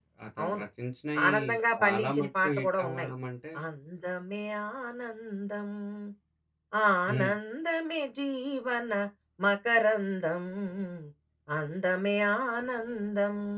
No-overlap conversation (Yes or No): No